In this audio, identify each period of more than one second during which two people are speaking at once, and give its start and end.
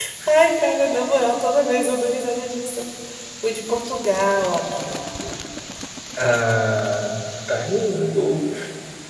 none

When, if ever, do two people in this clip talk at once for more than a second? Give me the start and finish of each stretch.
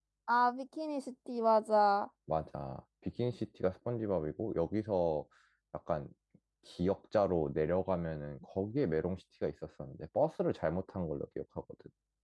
none

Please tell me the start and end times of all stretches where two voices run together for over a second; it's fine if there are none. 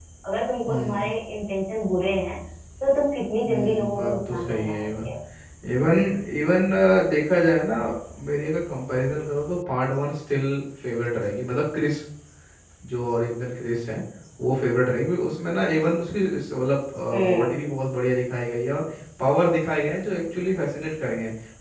3.5-5.1

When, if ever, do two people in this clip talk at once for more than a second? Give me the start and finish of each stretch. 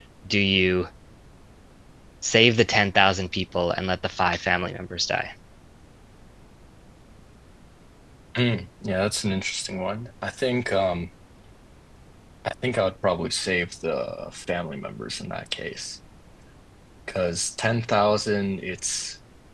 none

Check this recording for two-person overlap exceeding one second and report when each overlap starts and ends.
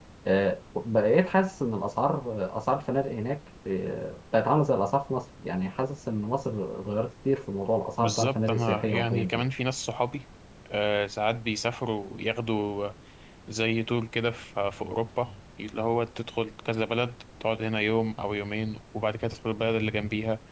8.0-9.5

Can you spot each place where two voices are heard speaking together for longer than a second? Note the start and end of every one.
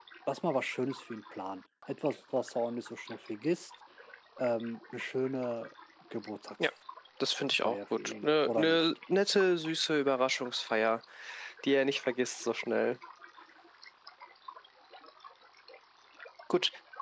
7.6-8.9

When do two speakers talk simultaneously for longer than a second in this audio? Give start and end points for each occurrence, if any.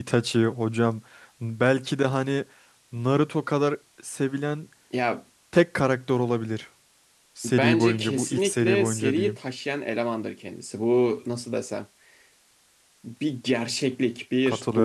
7.4-9.4

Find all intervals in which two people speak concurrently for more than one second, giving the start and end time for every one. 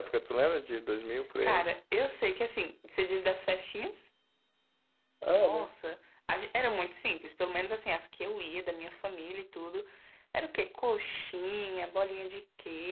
none

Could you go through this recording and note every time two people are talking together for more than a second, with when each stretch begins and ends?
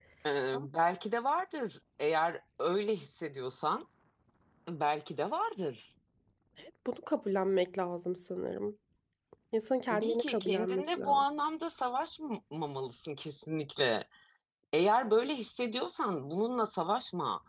9.9-11.2

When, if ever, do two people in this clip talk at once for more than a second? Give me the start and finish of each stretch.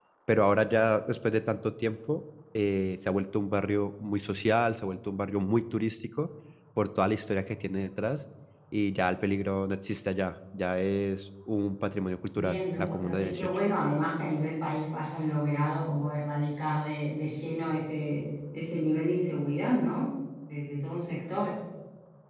12.4-13.6

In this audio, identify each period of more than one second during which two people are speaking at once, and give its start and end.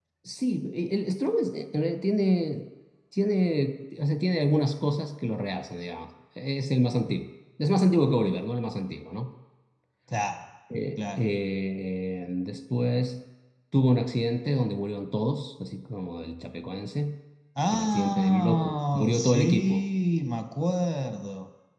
17.7-19.8

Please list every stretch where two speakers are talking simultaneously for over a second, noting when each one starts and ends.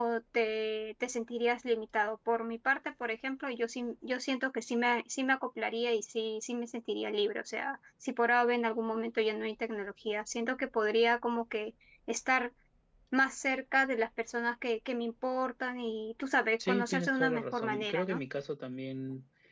16.7-18.2

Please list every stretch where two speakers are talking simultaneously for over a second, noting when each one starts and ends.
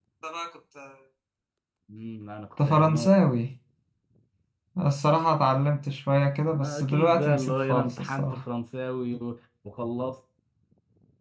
6.5-8.4

